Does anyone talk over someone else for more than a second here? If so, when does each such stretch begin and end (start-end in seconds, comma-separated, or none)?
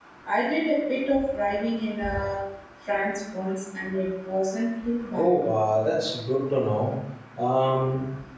none